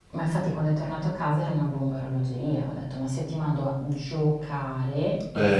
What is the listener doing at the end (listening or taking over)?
listening